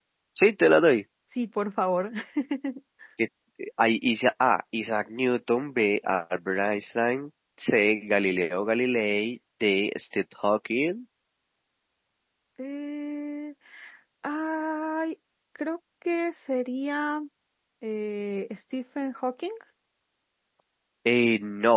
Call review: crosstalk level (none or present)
none